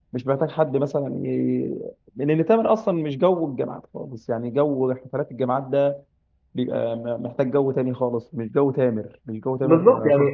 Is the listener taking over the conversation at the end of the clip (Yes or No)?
Yes